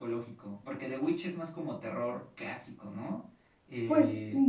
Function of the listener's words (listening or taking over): taking over